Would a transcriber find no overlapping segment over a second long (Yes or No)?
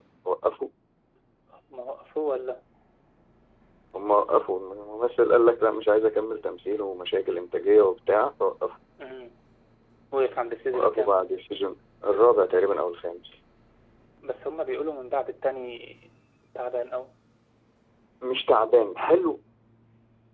Yes